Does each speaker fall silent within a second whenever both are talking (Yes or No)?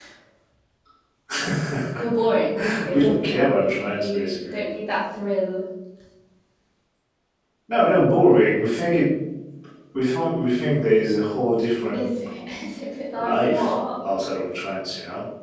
No